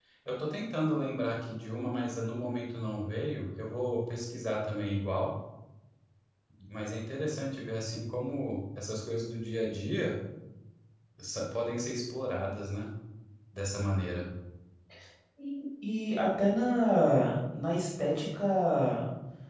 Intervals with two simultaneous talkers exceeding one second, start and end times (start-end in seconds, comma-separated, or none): none